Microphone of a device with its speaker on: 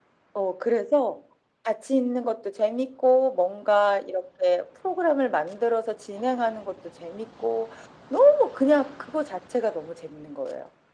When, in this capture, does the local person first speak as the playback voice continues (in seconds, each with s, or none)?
none